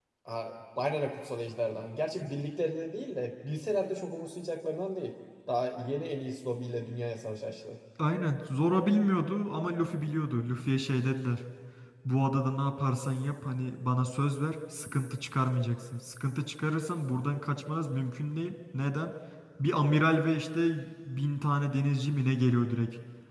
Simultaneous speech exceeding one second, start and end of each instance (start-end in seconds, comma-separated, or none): none